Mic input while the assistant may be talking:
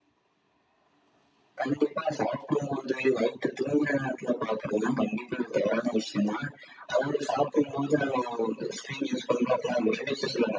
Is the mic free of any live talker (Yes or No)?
Yes